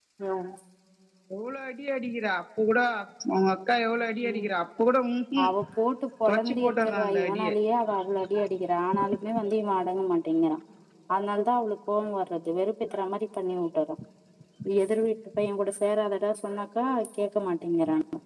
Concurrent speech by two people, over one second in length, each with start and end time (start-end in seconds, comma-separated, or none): 6.3-7.5